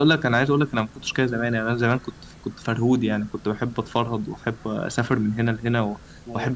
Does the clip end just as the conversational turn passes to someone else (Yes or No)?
No